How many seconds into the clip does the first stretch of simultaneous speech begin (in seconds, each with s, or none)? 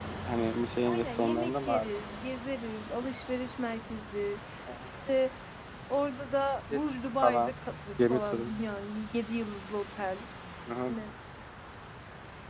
0.8 s